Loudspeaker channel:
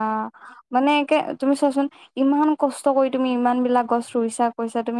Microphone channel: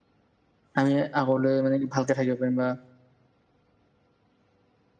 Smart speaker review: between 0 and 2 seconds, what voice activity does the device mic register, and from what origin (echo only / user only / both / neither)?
user only